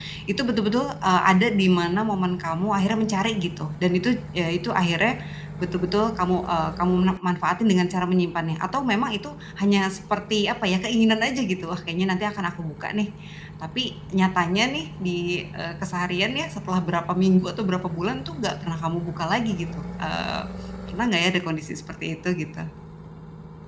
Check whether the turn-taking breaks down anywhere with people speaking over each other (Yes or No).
No